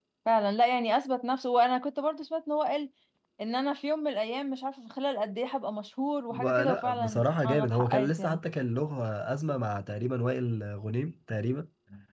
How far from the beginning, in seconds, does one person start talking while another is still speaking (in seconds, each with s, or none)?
6.3 s